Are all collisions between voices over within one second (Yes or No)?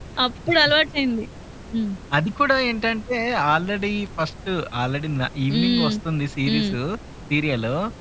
Yes